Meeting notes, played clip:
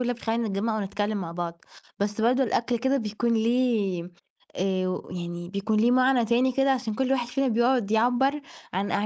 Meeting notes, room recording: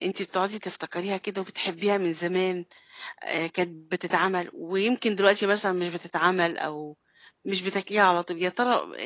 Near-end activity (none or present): present